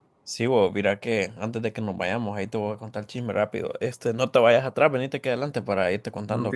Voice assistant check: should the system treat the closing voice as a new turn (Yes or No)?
Yes